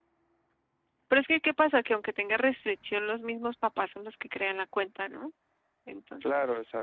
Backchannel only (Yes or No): No